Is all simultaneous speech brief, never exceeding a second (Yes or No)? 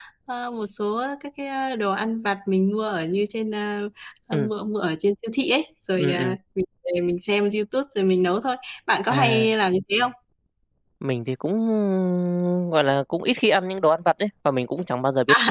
Yes